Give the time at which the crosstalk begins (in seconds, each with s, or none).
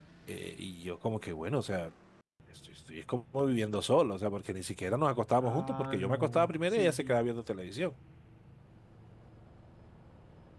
5.4 s